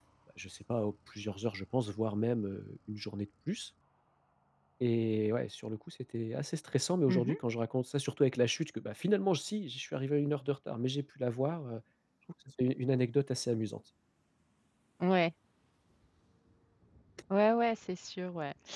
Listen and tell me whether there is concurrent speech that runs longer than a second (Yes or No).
No